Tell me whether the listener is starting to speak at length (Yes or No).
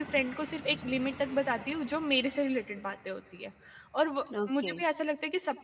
No